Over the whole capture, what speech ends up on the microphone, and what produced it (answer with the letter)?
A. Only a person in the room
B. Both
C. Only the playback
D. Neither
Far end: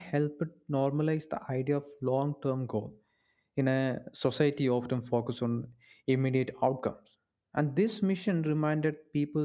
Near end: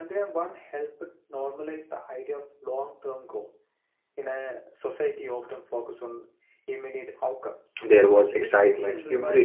B